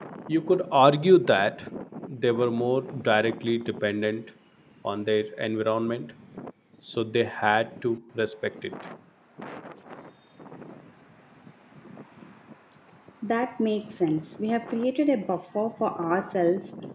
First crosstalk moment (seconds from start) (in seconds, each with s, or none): none